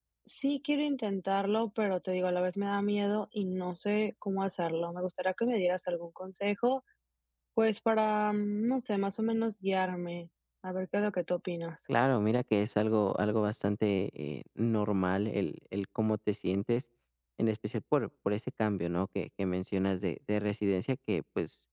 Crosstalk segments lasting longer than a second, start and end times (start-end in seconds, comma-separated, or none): none